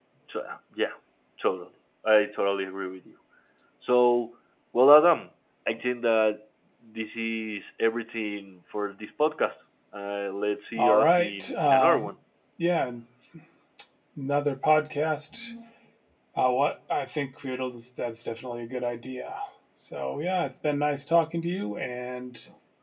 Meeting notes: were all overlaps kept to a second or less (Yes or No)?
No